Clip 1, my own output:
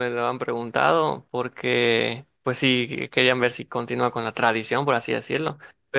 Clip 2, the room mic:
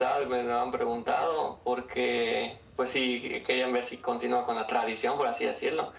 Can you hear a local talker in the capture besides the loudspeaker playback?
No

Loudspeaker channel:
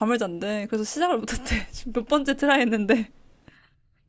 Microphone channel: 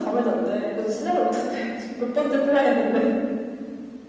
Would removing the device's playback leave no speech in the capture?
Yes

